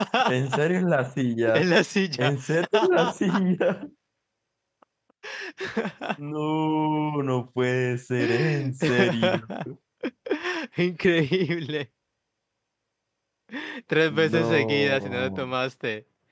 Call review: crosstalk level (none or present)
present